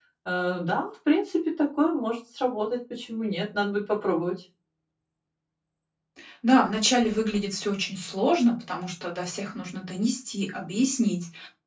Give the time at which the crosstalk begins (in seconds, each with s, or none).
none